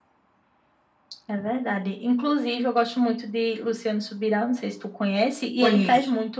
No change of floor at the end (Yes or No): Yes